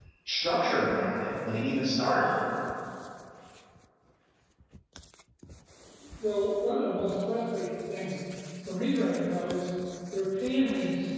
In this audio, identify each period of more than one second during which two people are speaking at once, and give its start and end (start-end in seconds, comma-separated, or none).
none